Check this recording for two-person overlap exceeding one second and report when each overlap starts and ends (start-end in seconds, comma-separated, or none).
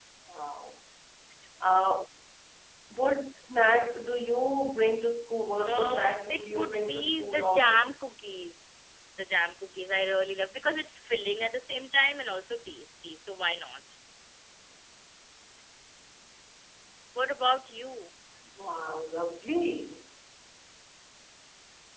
5.7-7.9